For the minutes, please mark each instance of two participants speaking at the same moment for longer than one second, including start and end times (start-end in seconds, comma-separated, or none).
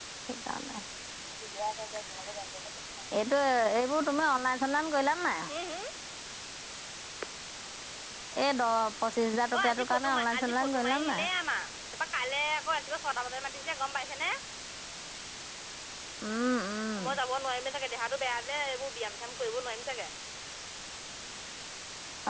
9.6-11.2